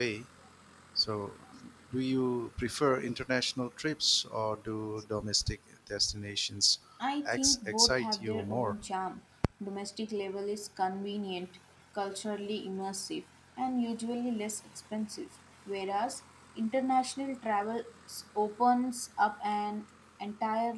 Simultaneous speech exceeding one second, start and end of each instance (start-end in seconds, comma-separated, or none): 7.2-8.8